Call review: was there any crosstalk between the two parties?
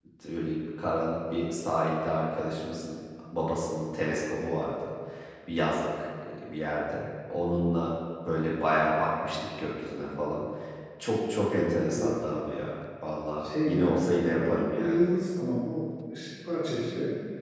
Yes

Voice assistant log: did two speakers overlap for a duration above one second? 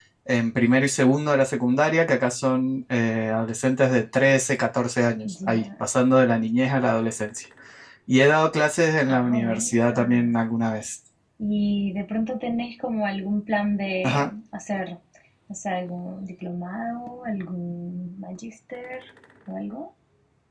Yes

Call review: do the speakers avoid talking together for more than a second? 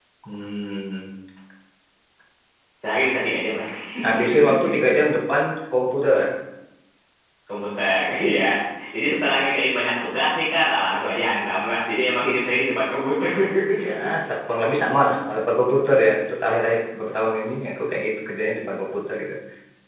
Yes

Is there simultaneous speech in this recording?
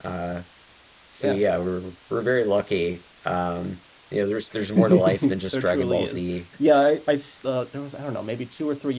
Yes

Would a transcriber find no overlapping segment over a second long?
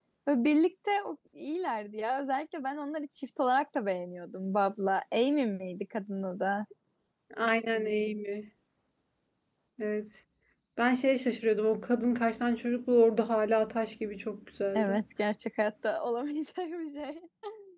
Yes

